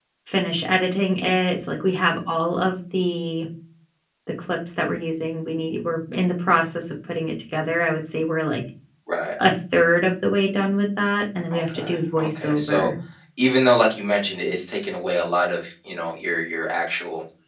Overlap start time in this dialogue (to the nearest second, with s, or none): 12 s